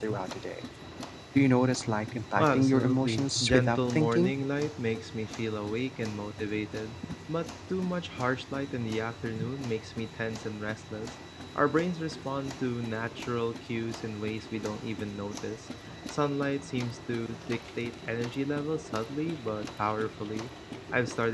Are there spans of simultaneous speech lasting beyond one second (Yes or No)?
Yes